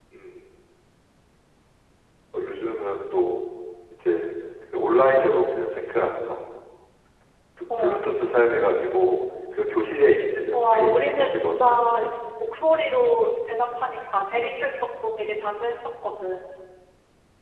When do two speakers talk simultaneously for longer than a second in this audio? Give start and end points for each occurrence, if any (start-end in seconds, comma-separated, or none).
10.5-11.8